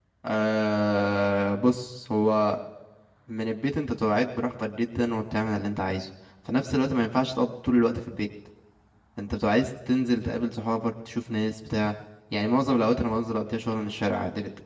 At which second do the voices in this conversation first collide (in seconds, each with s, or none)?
none